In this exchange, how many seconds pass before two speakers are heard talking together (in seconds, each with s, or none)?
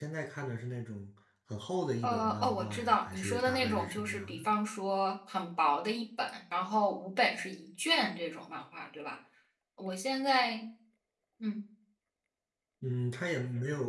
2.0 s